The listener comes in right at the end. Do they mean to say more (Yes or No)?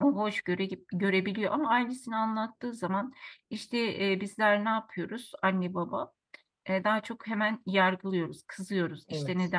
No